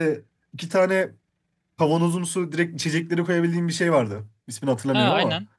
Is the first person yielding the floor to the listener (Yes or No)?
Yes